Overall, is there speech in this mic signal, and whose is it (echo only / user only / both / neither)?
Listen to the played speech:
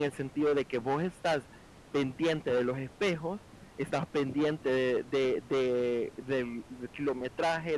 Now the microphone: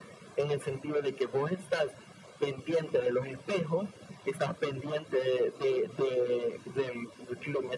echo only